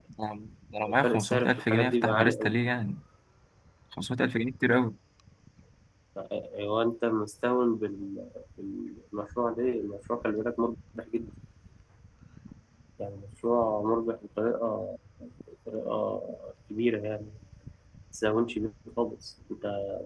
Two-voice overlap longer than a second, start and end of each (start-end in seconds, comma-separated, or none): 1.0-2.5